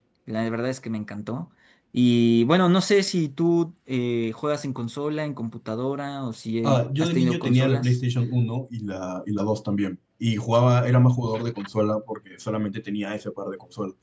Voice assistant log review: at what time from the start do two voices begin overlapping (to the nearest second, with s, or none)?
7 s